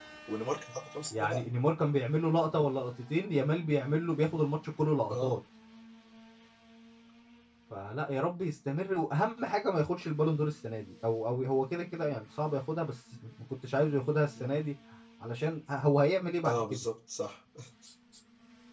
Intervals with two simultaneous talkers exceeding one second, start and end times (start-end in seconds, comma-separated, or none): none